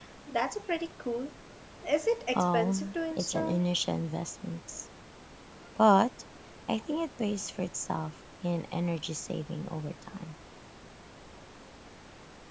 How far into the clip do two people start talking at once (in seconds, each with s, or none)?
2.4 s